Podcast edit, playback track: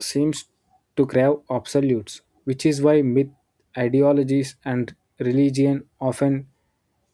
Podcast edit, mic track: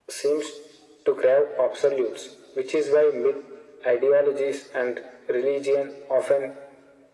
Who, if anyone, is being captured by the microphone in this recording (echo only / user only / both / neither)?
echo only